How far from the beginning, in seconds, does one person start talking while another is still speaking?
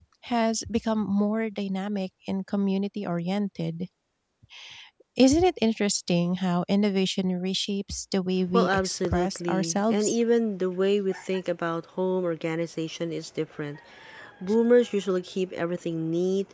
8.5 s

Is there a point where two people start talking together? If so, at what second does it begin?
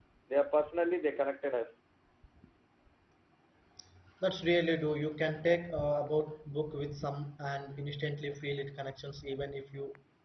none

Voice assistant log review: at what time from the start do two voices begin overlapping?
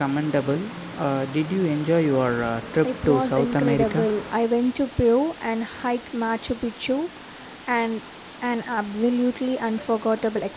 2.8 s

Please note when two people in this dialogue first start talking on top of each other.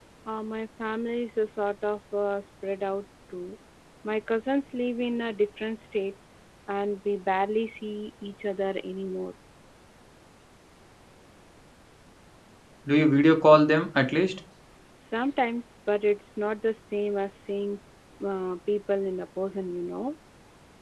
none

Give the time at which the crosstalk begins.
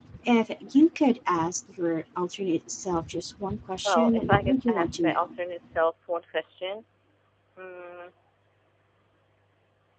3.9 s

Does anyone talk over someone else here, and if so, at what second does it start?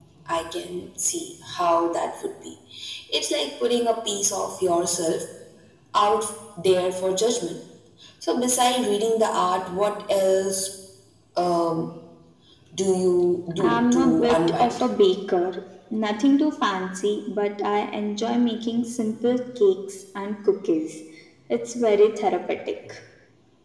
13.6 s

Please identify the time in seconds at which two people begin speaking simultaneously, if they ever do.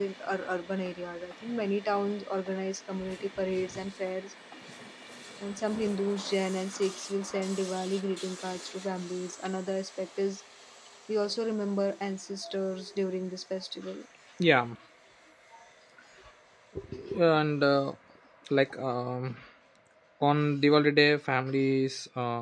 none

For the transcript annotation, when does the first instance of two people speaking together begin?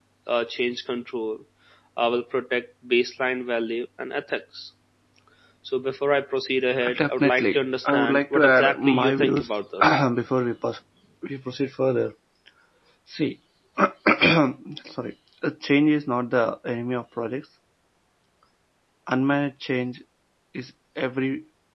6.8 s

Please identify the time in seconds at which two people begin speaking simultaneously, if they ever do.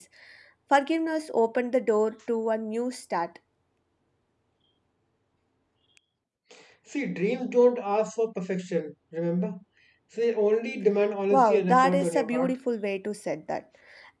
11.3 s

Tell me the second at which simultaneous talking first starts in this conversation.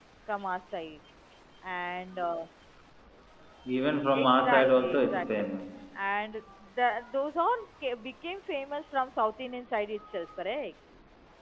4.1 s

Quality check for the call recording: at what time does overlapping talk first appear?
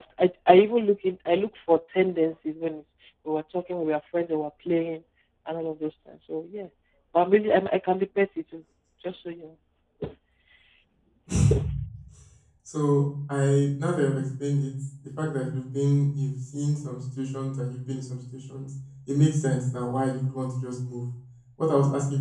none

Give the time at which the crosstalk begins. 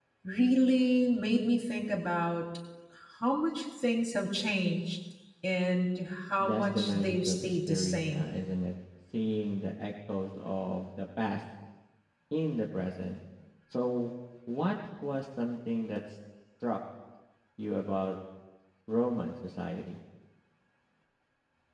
6.4 s

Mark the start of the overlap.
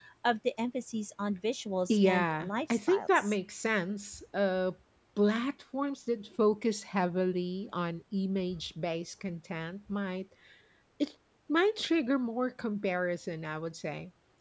1.9 s

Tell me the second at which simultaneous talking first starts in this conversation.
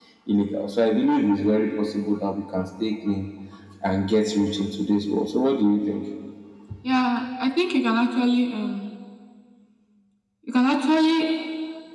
none

